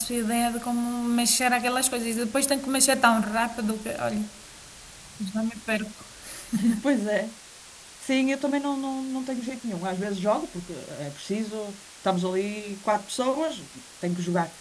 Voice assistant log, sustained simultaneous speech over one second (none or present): none